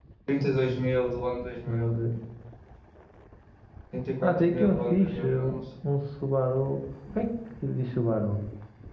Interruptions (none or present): present